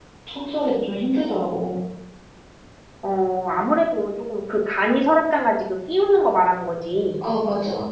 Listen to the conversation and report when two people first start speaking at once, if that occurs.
none

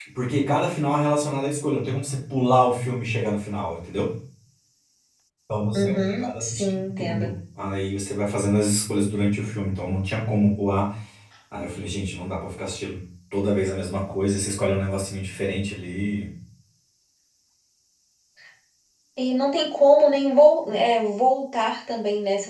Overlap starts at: 5.8 s

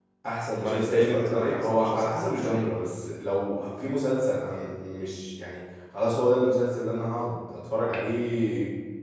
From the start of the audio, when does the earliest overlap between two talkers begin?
0.5 s

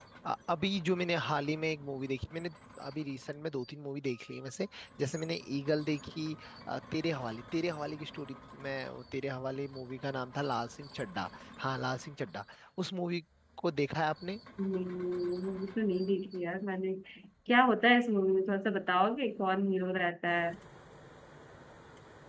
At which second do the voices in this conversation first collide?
none

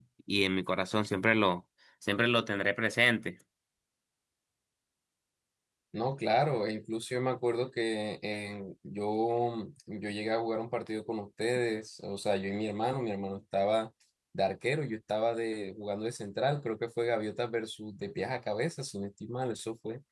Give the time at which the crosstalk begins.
none

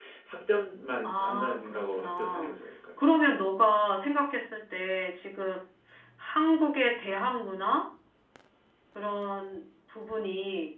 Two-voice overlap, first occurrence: 1.0 s

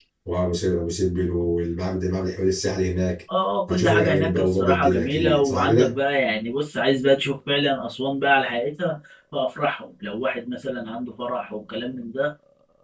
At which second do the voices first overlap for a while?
3.7 s

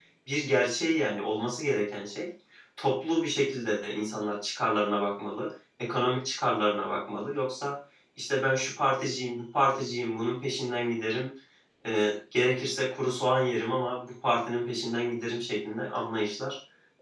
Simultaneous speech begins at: none

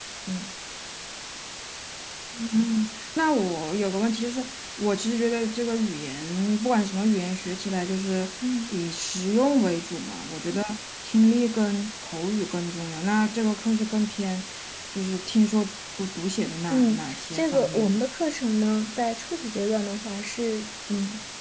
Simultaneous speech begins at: 16.7 s

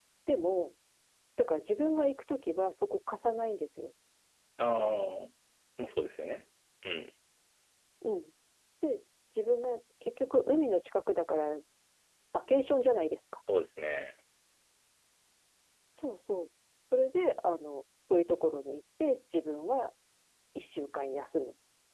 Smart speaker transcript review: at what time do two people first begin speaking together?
none

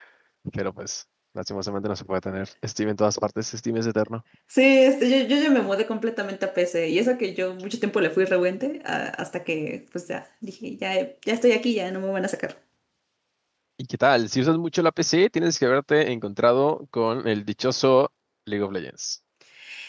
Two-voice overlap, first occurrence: none

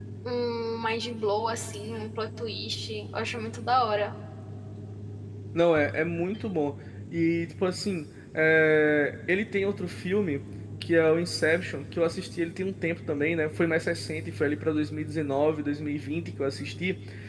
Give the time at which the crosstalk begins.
none

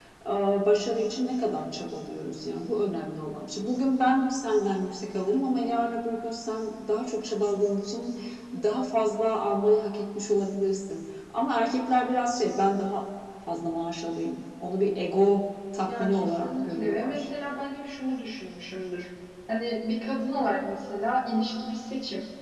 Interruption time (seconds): 15.9 s

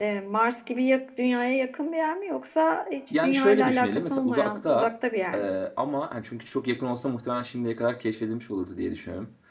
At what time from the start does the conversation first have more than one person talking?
3.1 s

